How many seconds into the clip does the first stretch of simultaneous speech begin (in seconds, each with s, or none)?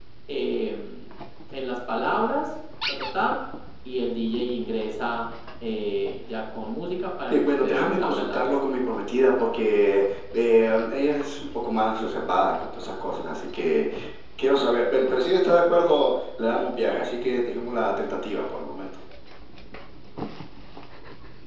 7.3 s